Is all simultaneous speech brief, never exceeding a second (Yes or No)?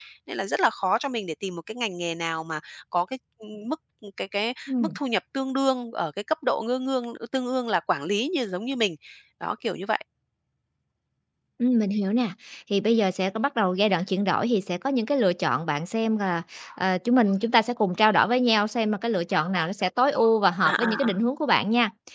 Yes